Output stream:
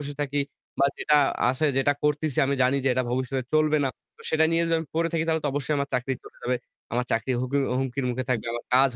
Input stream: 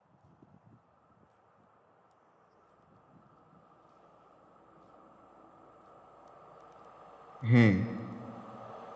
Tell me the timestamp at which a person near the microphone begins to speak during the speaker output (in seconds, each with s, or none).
7.5 s